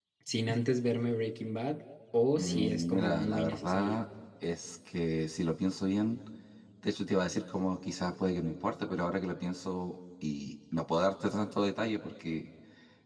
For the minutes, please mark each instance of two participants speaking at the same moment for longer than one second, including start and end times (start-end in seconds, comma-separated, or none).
2.4-4.0